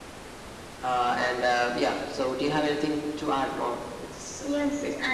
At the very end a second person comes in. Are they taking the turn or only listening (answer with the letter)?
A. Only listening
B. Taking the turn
B